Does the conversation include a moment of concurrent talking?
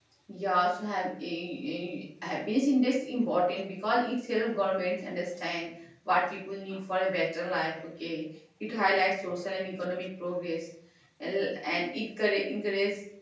No

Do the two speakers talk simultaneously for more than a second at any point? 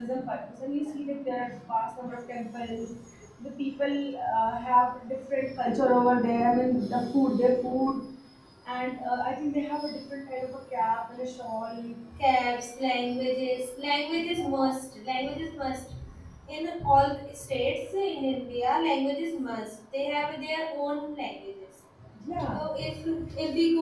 No

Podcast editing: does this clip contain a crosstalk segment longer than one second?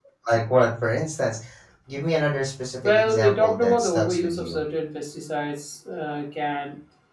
Yes, from 2.8 s

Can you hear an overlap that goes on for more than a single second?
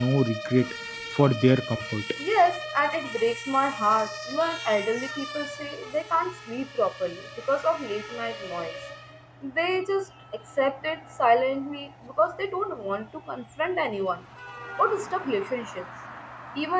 No

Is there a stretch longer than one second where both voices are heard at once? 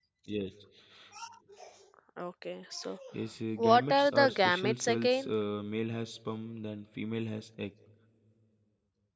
Yes, from 3.6 s

